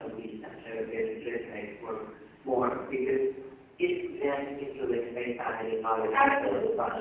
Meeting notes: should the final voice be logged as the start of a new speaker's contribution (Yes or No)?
Yes